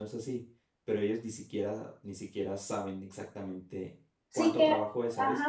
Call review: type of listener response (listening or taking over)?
taking over